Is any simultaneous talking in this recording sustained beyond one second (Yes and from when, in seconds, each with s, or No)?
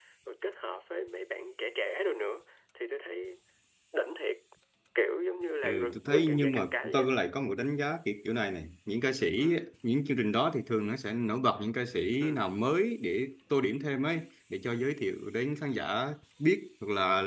Yes, from 5.6 s